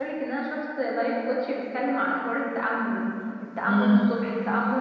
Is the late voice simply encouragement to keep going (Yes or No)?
Yes